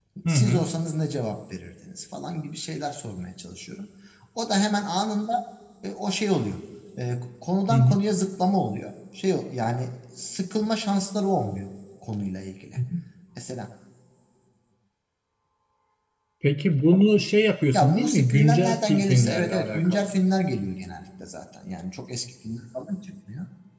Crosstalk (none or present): present